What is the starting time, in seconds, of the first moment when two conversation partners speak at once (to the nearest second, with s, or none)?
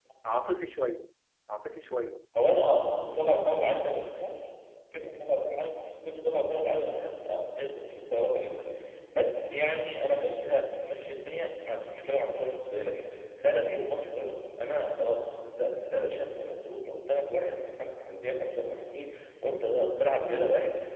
none